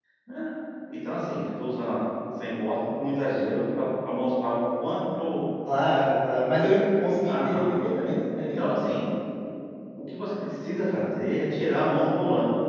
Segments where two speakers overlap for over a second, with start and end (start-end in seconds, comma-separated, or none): none